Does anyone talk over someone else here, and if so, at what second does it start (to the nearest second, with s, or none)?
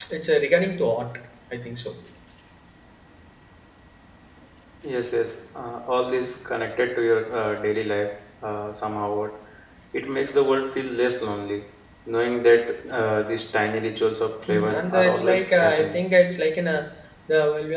14 s